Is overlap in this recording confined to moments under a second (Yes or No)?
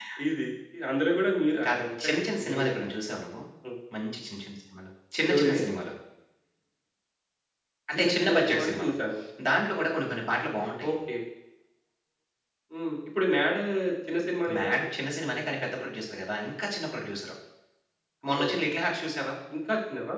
No